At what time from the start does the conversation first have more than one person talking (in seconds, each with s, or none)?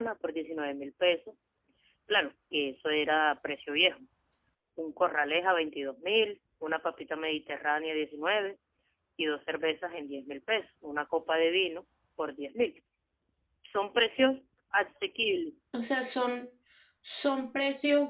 none